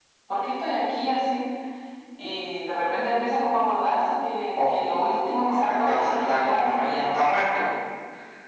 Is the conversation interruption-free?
No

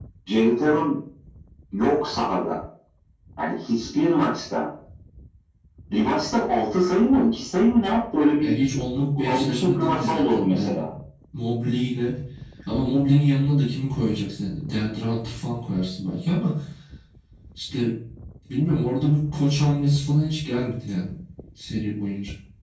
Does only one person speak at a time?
No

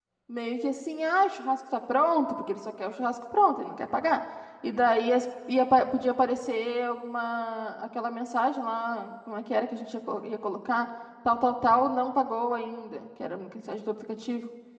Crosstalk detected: No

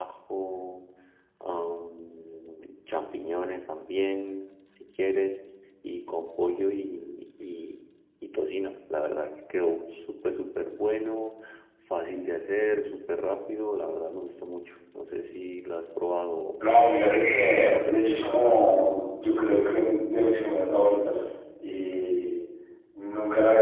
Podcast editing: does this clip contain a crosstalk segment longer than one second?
Yes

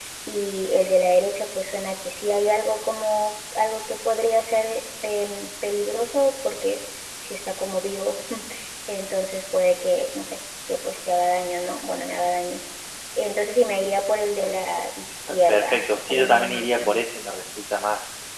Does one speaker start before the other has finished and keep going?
Yes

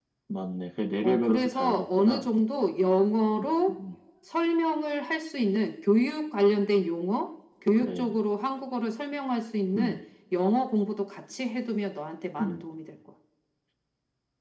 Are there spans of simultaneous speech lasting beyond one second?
Yes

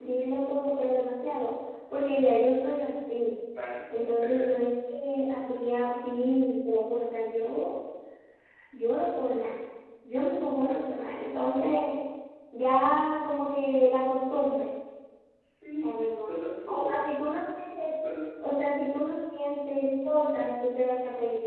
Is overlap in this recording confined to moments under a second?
Yes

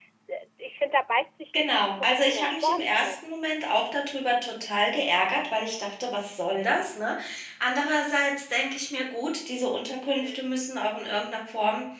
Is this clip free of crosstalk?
No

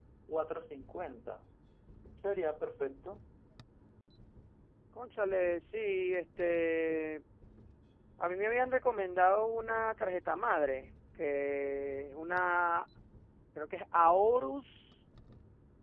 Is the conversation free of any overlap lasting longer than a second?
Yes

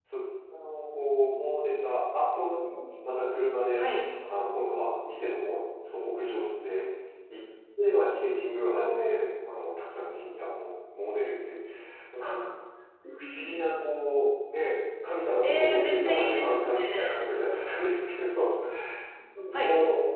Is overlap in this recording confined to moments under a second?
No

